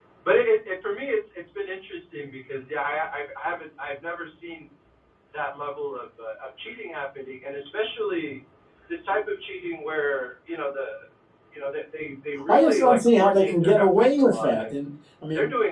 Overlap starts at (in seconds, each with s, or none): 12.4 s